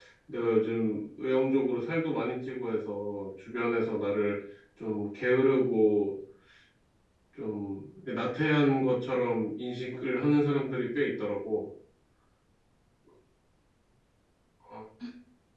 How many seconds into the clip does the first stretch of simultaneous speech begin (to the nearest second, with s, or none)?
none